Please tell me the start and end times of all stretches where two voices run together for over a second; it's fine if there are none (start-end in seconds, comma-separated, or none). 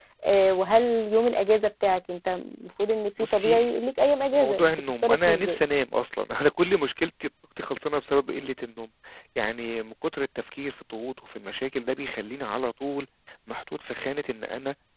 4.3-5.6